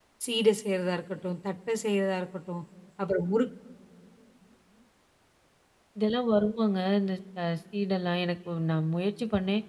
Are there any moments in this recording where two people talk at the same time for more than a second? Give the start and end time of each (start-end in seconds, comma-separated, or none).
none